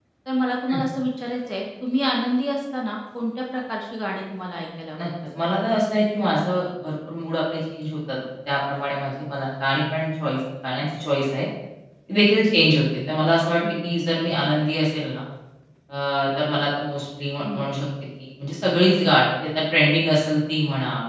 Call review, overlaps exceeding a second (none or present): none